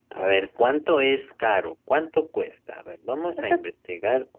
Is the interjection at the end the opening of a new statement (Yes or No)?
No